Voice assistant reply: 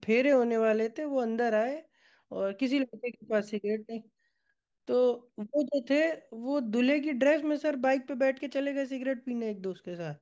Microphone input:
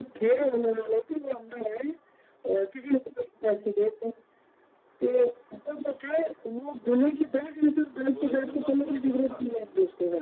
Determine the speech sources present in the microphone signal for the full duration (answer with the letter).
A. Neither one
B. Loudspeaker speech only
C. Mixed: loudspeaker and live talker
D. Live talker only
C